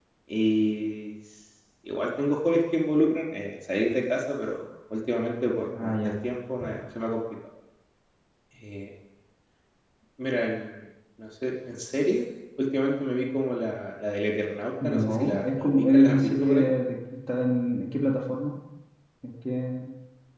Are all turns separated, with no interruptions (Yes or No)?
No